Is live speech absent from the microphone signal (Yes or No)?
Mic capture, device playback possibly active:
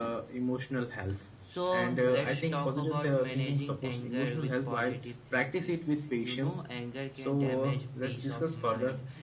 Yes